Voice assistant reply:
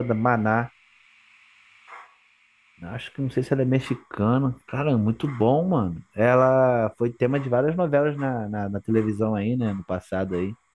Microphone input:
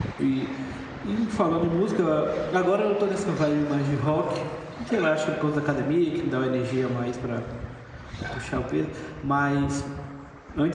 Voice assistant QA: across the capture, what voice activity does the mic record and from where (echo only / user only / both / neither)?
user only